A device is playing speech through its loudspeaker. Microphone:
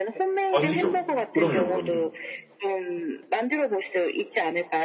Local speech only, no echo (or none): 아니죠. 그럼요, 그럼요.